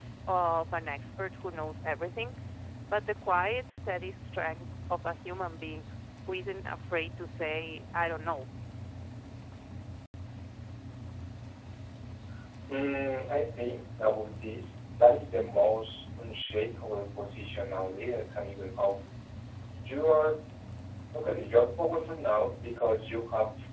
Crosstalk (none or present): none